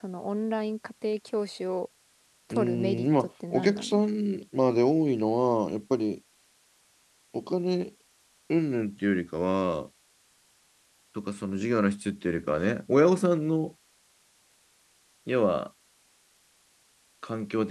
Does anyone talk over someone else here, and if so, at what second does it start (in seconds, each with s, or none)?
2.5 s